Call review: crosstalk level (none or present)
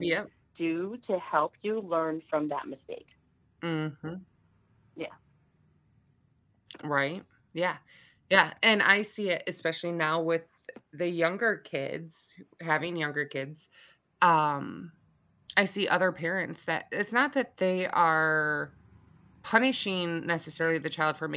none